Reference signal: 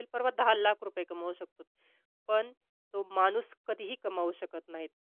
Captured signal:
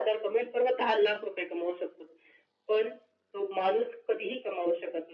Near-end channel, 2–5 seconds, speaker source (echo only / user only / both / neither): echo only